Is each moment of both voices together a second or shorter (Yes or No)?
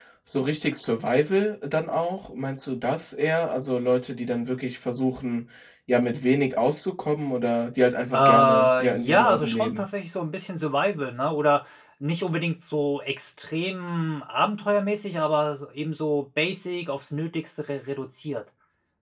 No